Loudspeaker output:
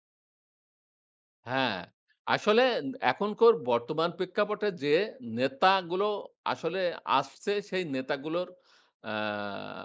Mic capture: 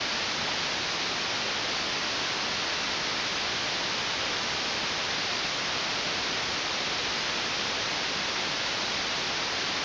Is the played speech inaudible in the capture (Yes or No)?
Yes